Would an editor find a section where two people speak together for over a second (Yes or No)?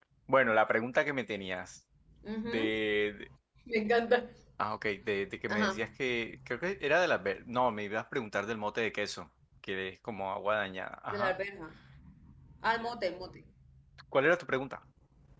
No